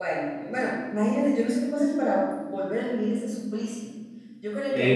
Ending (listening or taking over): taking over